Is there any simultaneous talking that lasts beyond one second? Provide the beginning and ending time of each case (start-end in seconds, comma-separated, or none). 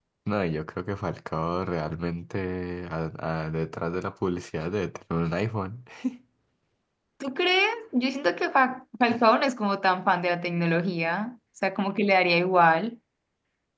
none